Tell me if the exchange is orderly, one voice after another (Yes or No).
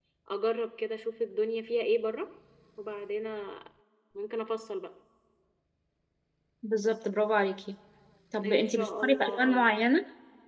No